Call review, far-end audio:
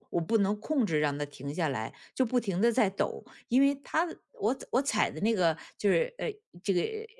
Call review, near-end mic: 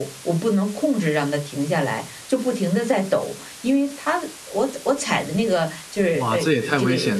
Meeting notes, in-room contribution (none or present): present